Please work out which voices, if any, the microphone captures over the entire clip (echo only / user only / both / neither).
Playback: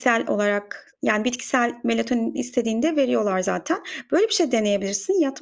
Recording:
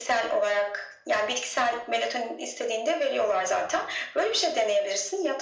echo only